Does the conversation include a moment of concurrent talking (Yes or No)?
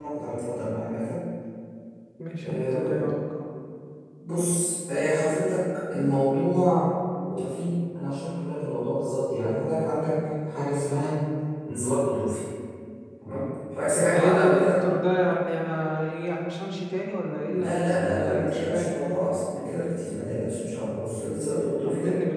Yes